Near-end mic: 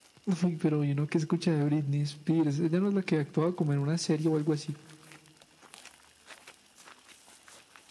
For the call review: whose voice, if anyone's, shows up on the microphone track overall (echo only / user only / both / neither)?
echo only